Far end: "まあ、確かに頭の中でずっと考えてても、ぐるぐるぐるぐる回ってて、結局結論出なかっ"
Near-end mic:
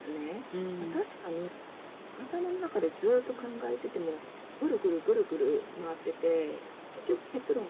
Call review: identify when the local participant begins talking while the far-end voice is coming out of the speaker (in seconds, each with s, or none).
0.5 s